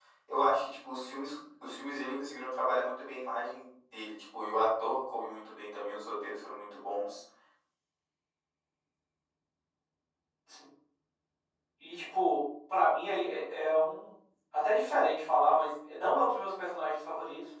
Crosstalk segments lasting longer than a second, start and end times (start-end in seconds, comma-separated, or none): none